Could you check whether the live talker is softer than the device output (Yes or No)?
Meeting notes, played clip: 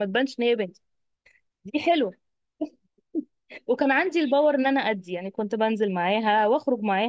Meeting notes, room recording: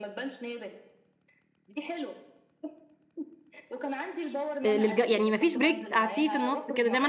No